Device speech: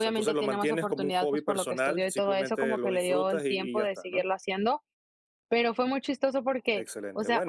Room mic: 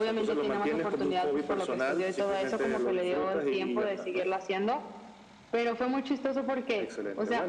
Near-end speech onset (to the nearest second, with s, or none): none